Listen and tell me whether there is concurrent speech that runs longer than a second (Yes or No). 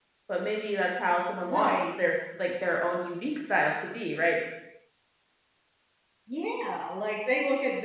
No